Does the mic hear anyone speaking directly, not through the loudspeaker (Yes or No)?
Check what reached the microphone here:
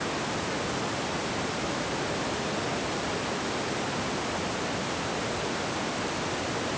No